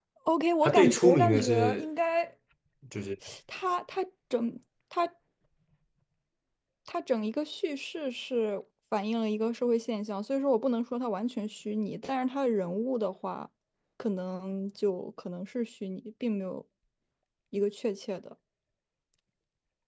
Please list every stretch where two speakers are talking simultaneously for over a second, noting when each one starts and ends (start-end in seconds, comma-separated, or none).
0.6-1.9